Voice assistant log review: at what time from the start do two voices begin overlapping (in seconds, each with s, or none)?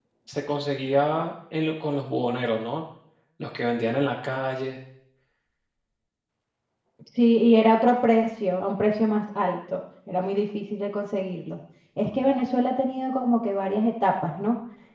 none